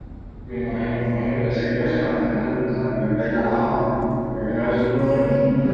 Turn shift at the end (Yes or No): No